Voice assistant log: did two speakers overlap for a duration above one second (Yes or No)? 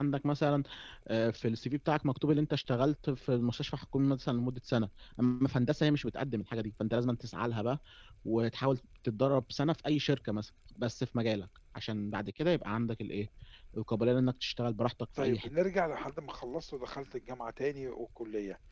No